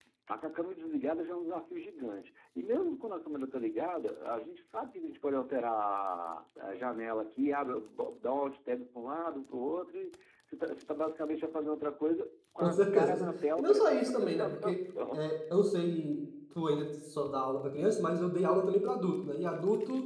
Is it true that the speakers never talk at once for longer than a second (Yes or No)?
No